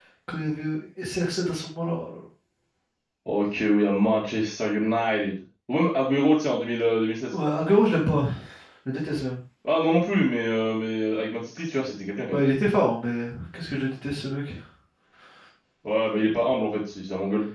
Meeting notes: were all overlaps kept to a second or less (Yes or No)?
Yes